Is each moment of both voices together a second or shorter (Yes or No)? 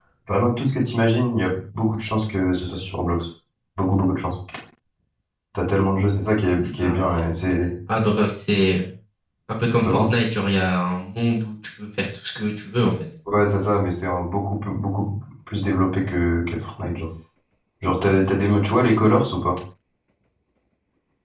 Yes